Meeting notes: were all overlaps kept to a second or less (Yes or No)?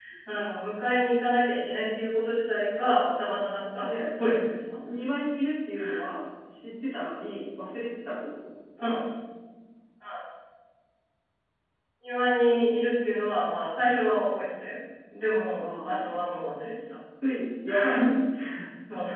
Yes